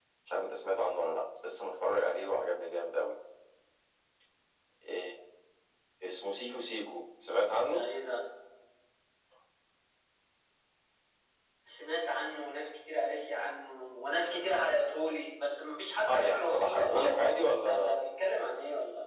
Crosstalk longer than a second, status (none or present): present